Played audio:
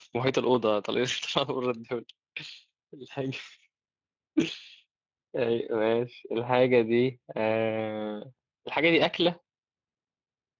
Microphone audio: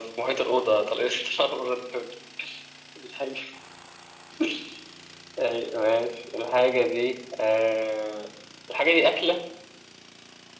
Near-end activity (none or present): none